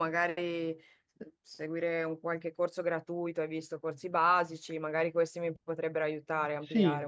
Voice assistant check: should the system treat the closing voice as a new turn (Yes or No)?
Yes